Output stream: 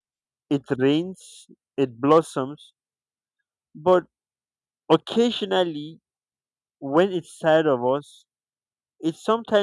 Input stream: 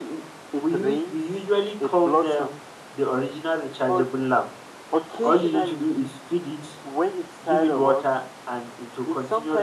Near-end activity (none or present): present